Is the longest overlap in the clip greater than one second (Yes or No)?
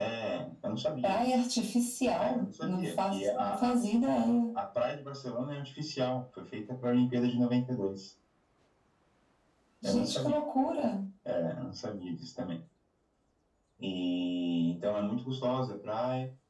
Yes